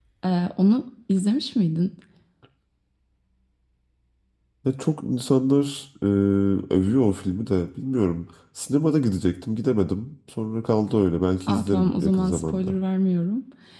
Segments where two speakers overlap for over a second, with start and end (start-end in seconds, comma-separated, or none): 11.5-12.8